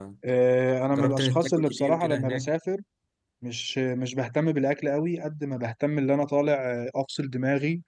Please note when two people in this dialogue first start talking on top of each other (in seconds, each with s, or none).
0.9 s